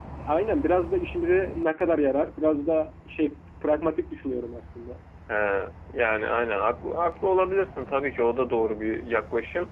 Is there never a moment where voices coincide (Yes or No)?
Yes